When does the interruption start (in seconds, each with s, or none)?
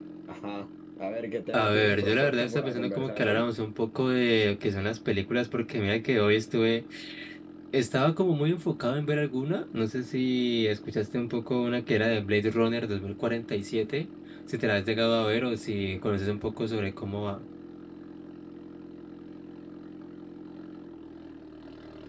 1.5 s